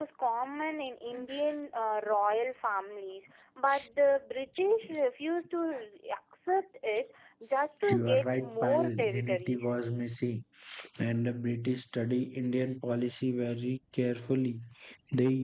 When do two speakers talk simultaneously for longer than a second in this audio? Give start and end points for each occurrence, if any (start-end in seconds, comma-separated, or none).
7.9-9.7